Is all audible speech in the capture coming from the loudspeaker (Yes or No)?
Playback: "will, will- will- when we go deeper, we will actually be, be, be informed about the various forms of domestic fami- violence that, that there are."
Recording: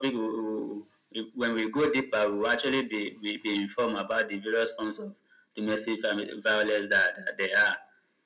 Yes